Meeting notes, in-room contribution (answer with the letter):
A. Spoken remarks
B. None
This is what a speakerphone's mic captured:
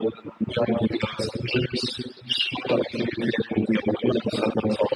B